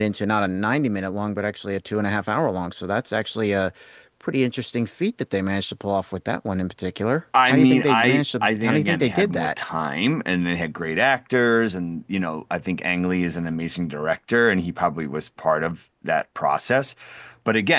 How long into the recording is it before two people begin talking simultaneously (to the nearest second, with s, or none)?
7 s